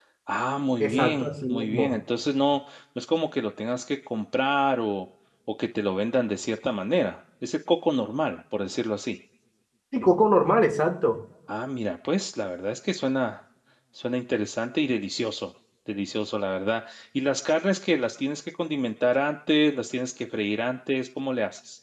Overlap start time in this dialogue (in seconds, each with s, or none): 0.8 s